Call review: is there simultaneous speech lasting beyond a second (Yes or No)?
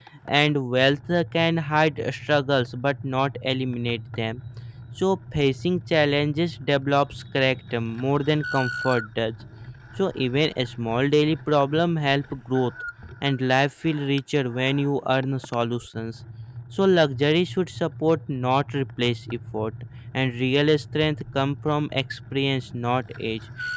No